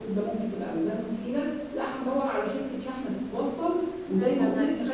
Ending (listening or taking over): taking over